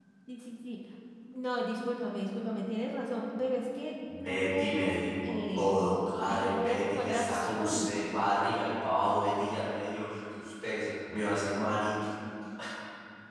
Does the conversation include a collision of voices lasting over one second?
Yes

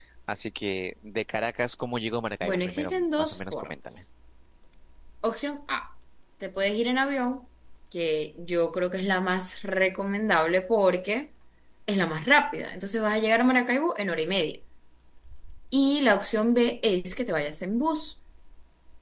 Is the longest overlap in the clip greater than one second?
Yes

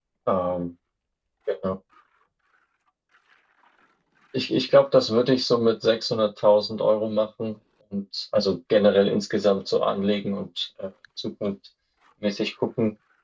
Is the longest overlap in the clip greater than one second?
No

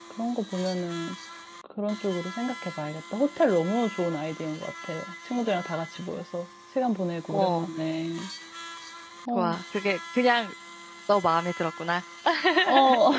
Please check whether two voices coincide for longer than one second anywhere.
No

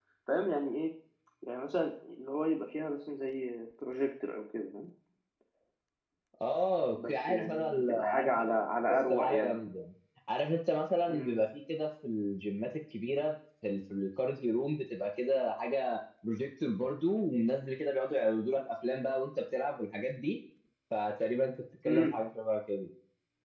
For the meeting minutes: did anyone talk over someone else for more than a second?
Yes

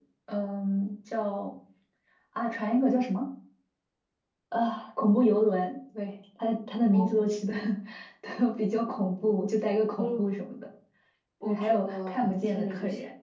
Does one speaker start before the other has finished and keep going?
Yes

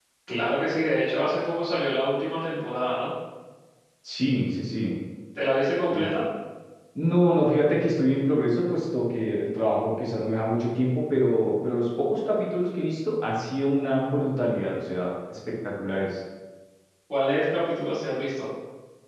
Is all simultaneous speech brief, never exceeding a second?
Yes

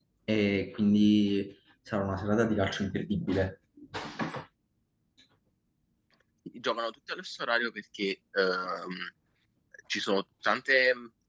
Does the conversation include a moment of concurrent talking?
No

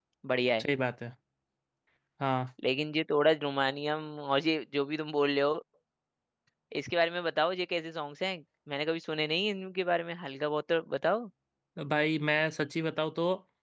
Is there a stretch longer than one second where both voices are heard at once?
No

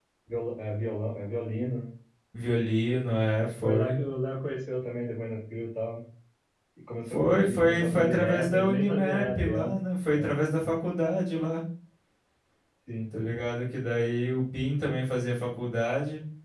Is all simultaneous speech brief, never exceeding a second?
No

